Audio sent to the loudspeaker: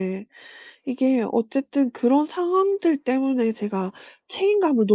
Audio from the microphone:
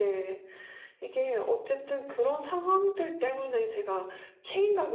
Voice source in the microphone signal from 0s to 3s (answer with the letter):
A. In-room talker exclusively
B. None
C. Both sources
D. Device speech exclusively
D